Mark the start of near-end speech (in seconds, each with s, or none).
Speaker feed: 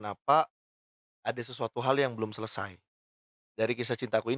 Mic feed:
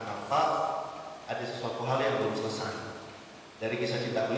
none